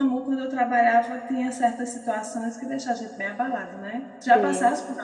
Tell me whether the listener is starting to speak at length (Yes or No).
No